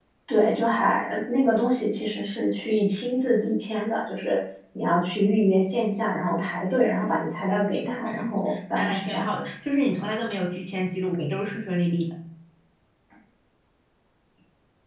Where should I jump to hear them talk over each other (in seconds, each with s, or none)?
7.8 s